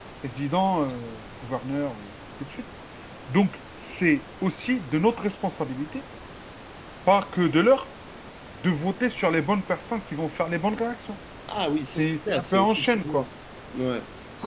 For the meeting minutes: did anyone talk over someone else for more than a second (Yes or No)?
Yes